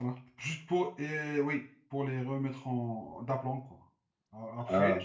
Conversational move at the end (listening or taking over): listening